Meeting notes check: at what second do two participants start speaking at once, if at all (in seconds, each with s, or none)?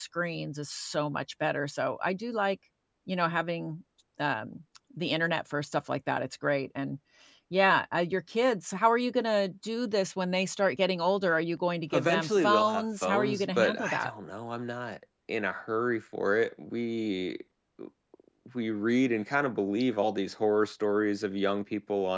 11.9 s